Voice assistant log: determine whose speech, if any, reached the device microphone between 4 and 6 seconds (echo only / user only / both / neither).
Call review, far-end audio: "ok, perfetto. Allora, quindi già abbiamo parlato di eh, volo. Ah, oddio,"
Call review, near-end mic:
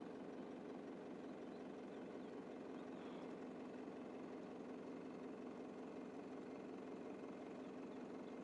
neither